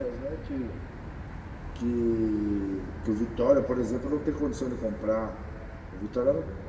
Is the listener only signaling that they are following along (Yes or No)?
Yes